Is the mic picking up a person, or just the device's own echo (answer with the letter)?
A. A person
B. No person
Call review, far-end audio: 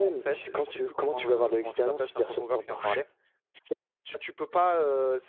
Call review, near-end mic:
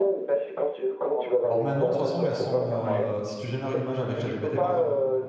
A